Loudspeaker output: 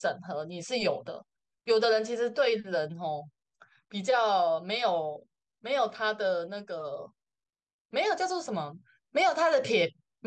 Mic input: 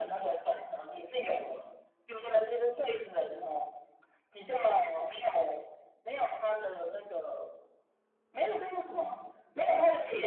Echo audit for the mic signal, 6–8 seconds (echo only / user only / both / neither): echo only